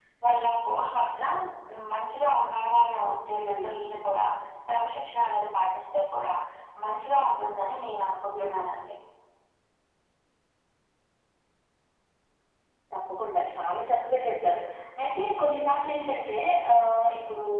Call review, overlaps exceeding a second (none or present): none